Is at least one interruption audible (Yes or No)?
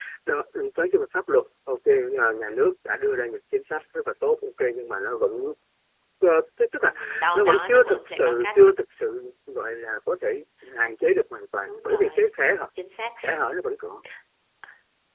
Yes